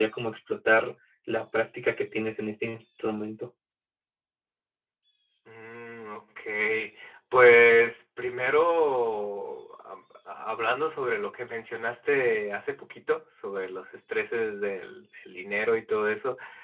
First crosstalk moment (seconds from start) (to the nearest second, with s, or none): none